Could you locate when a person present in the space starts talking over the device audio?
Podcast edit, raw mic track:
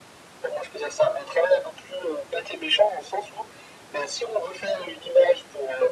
none

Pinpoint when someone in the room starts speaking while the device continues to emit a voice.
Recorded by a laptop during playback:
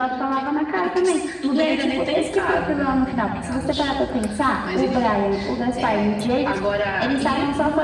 none

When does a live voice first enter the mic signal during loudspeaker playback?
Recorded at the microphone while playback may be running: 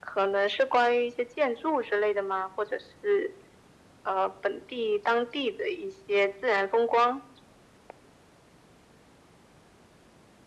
none

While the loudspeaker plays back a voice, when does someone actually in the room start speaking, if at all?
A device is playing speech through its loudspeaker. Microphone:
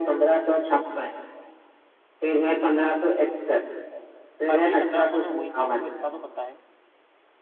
4.5 s

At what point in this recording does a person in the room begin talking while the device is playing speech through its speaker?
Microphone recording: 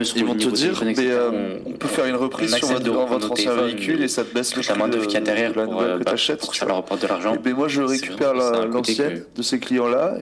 none

